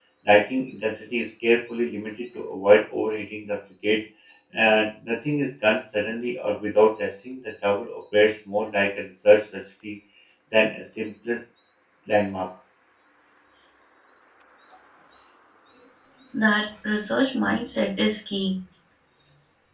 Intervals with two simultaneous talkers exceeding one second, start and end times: none

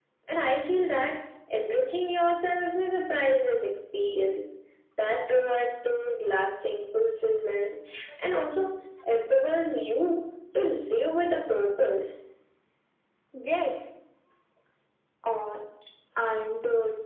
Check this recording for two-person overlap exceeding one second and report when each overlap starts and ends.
none

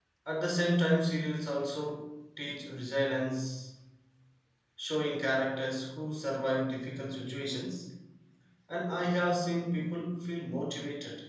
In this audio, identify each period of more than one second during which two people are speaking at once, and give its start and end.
none

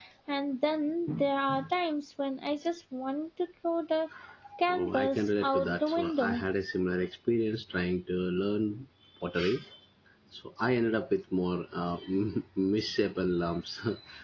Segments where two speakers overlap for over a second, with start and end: 4.7-6.4

